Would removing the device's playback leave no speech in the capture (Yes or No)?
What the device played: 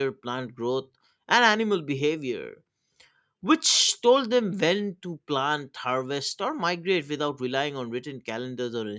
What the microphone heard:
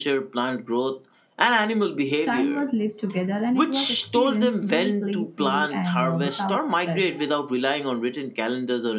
No